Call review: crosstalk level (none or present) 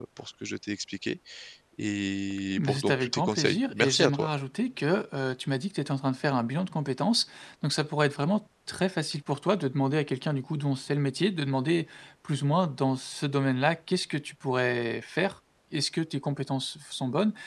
present